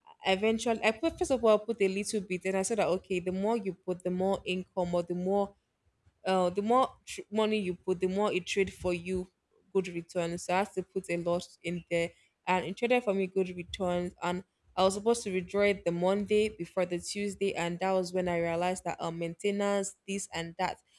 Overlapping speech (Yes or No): No